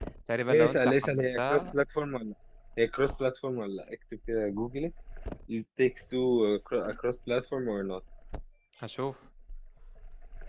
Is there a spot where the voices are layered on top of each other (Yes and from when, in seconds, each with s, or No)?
Yes, from 0.5 s